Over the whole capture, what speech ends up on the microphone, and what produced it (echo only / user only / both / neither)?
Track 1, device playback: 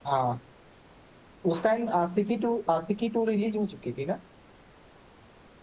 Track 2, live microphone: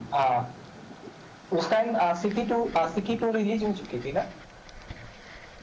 echo only